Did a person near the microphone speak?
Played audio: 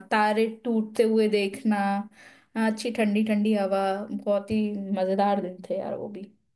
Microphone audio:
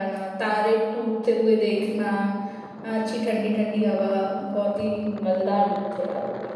No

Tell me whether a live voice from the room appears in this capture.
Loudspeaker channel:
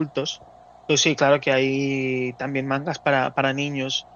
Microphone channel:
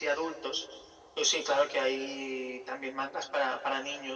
No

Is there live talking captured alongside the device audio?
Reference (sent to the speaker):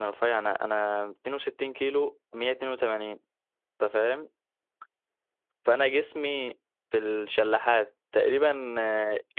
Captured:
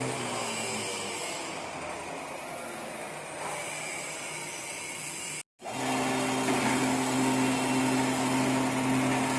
No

